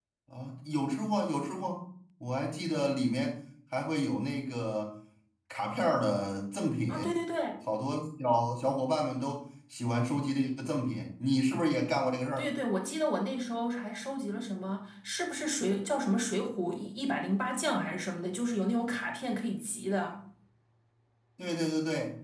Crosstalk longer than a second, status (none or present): none